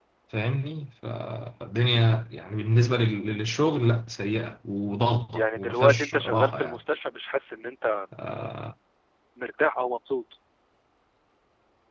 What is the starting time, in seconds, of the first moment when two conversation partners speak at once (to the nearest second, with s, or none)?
5 s